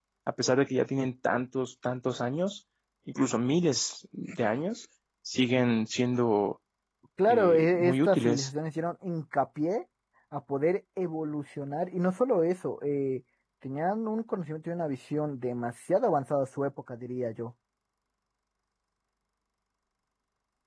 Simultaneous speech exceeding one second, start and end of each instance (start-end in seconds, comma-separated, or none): 7.3-8.5